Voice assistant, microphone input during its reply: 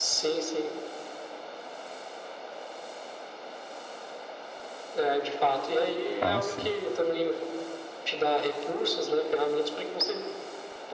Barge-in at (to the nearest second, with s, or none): 6 s